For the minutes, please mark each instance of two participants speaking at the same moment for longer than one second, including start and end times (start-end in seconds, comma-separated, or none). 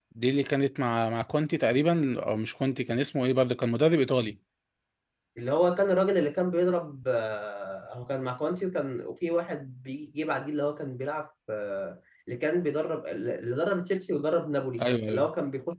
none